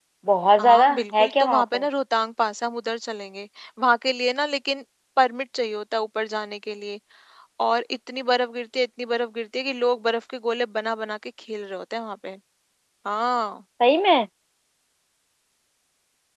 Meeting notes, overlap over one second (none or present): present